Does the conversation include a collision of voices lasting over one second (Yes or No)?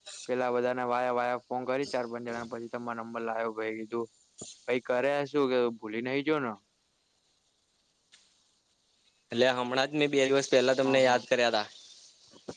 No